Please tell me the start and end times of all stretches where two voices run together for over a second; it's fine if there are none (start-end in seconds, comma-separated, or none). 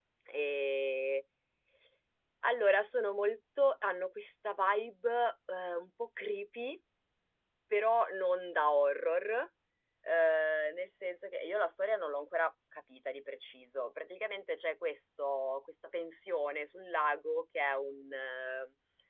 none